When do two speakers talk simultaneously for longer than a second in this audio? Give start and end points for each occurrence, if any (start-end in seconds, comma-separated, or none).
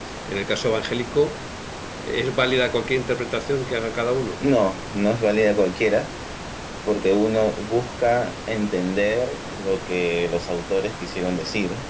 none